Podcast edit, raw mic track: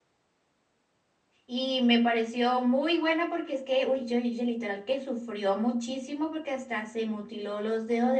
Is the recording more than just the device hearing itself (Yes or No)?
Yes